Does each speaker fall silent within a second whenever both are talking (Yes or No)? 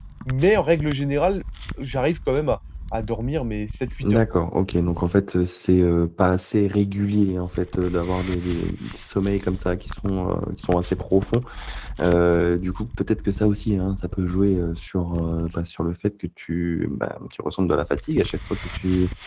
Yes